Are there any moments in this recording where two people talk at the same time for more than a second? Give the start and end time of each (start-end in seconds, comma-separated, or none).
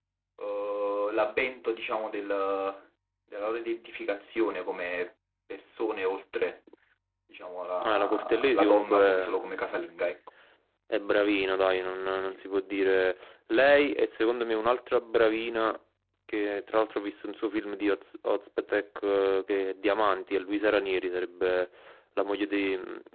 7.8-9.8